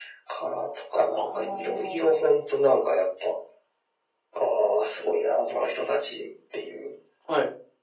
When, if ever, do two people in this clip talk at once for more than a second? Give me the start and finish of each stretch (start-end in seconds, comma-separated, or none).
1.1-2.4